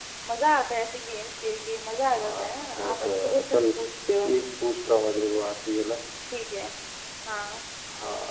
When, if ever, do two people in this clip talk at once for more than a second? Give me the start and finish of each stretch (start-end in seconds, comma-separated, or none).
2.1-3.6